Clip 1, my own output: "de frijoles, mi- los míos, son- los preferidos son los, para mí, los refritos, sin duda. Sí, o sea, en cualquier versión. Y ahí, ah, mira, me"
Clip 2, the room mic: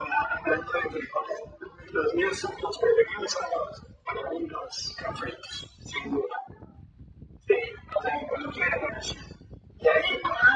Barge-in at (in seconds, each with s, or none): none